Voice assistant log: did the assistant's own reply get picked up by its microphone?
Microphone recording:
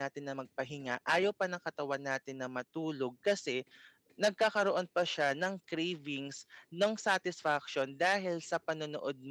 No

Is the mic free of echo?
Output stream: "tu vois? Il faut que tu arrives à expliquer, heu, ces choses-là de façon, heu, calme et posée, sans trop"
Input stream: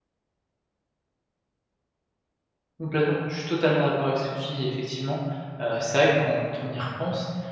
Yes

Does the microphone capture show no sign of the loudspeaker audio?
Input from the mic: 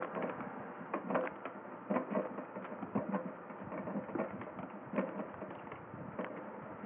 Yes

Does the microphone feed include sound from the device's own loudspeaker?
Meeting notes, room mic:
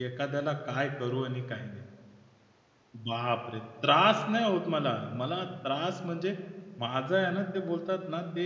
No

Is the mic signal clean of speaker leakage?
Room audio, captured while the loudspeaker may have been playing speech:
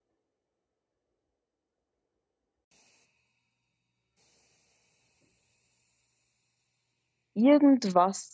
Yes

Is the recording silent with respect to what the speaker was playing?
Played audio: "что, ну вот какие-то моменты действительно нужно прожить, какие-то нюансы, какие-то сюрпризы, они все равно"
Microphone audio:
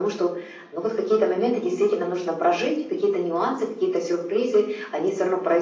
No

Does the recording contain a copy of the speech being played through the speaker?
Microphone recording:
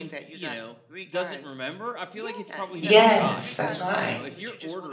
Yes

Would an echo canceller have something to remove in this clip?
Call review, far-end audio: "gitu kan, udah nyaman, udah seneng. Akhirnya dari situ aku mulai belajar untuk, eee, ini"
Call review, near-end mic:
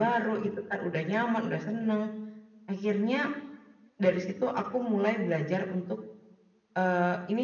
Yes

